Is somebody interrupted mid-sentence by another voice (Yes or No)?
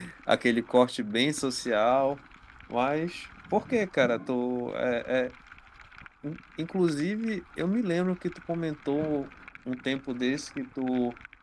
No